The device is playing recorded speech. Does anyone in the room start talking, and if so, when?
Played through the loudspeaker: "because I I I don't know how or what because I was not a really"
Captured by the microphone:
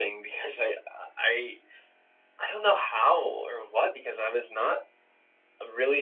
none

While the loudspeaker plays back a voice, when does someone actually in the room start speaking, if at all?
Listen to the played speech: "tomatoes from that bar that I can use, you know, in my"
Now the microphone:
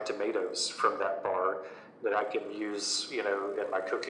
none

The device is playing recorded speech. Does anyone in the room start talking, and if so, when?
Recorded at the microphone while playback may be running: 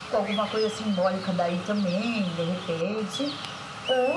none

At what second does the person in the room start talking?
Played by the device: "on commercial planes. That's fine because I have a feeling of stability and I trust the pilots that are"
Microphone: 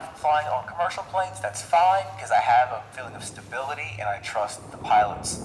none

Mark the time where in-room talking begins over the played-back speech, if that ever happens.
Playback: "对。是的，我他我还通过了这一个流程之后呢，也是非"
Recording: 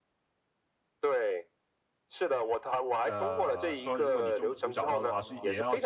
3.0 s

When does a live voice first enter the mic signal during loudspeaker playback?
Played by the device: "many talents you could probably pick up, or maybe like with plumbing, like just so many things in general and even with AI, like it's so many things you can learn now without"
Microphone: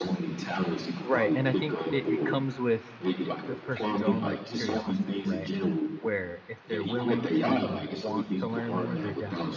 1.0 s

